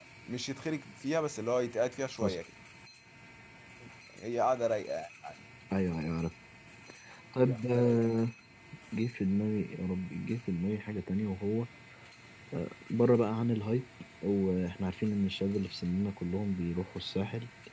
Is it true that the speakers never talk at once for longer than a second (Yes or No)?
Yes